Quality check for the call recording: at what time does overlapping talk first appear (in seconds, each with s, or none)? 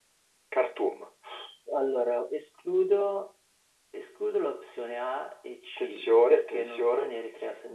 5.8 s